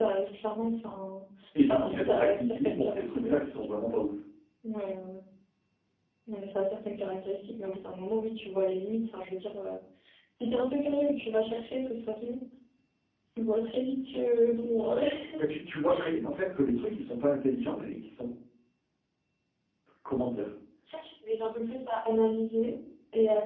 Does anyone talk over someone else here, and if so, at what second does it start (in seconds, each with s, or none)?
1.7 s